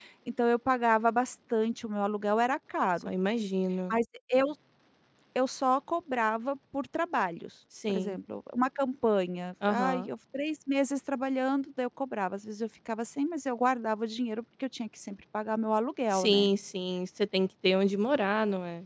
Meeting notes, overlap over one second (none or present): none